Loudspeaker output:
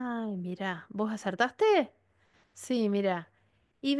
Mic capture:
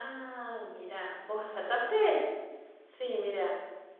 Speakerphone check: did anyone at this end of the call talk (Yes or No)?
No